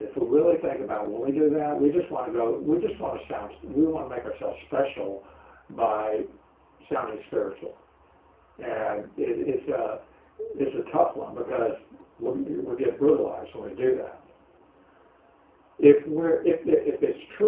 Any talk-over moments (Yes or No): No